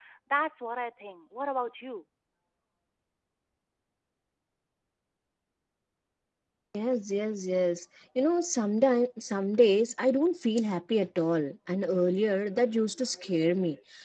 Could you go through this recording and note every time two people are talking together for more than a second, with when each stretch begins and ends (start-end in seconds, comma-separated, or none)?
none